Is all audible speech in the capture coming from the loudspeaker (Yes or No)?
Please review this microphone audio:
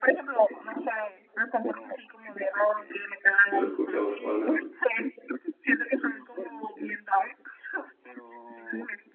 No